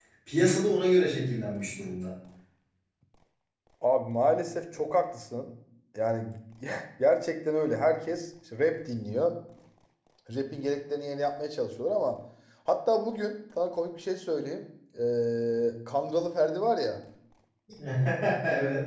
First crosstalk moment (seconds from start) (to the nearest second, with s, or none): none